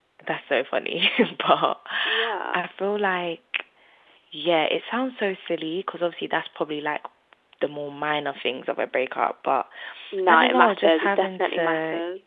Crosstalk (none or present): present